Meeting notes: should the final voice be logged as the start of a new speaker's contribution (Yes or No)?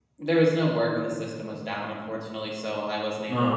No